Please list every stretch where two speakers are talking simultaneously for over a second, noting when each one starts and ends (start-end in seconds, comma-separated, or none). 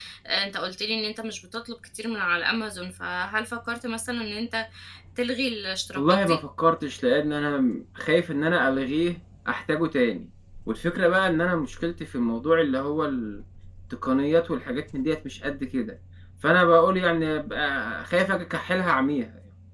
none